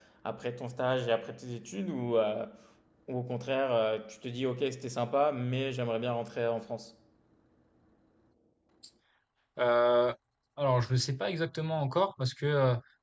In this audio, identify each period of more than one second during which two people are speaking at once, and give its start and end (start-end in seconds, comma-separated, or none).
none